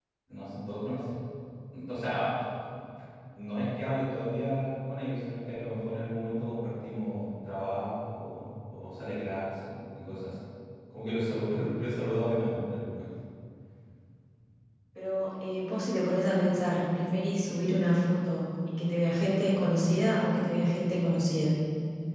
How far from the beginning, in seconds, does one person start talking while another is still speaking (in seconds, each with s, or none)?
none